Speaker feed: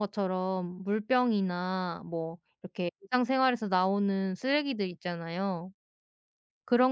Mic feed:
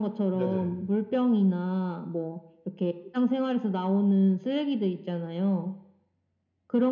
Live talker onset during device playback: 0.3 s

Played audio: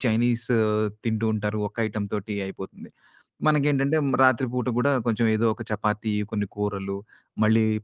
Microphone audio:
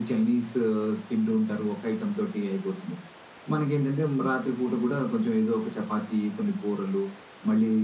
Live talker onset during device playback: none

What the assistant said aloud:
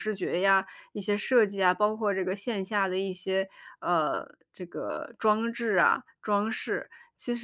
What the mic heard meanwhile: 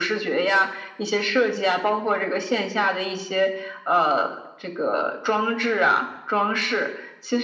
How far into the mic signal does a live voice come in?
none

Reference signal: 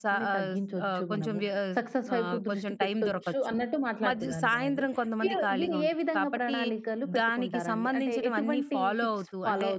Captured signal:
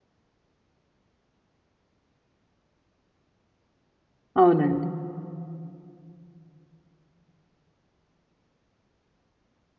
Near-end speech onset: 4.4 s

